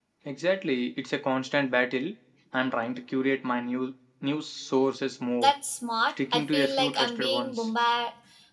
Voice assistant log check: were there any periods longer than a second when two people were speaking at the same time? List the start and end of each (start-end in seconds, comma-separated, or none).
6.1-7.7